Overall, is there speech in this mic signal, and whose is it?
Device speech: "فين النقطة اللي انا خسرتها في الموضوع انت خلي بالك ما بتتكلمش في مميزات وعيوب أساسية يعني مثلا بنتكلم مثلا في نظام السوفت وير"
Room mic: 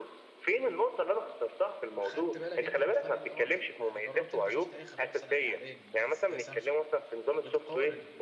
both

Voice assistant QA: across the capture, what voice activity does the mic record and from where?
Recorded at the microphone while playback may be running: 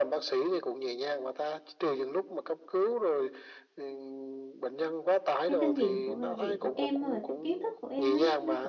both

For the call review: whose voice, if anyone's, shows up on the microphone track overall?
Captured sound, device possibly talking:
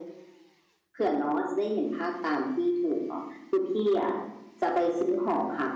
echo only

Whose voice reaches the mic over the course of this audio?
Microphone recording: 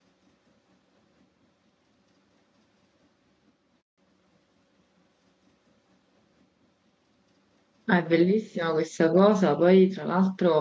user only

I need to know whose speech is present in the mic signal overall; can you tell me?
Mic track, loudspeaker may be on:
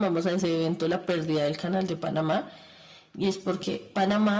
echo only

